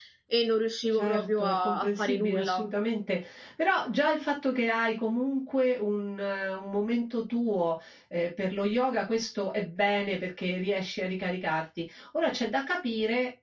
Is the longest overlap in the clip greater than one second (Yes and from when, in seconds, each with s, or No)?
Yes, from 0.9 s